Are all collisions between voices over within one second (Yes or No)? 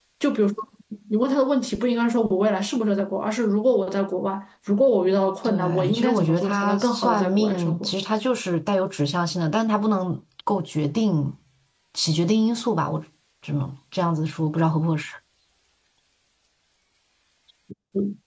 No